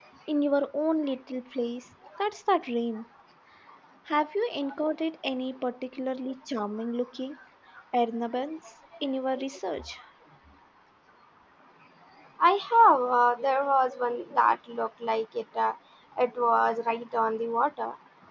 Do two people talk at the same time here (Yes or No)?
No